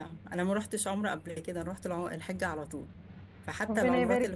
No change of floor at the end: No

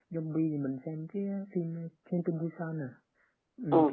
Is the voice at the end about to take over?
Yes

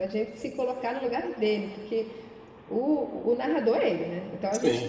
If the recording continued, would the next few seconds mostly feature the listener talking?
No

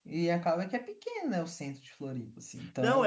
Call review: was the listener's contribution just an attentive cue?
No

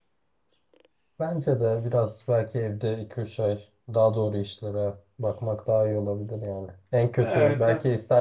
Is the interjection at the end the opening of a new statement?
No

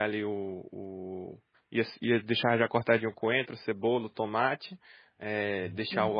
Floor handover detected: No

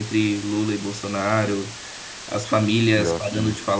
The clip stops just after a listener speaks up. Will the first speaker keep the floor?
Yes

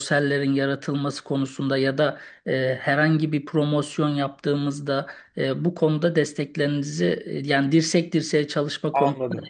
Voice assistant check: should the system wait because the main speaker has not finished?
No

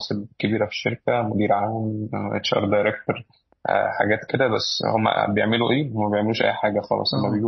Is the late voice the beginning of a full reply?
No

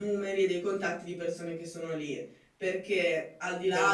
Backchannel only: Yes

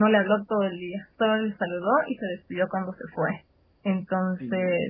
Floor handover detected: No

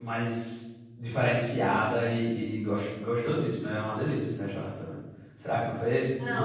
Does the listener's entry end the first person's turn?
Yes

